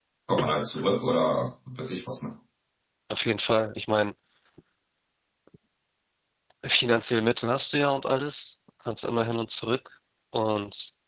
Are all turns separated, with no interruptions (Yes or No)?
Yes